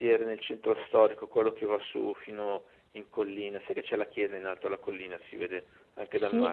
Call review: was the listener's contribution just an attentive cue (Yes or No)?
No